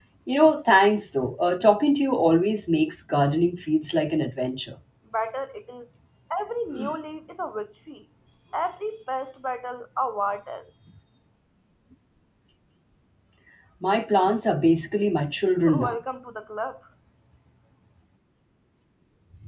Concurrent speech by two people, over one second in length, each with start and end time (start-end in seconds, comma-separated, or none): none